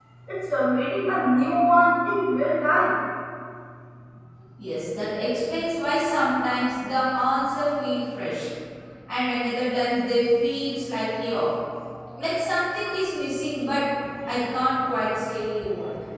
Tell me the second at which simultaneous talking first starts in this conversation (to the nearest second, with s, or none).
none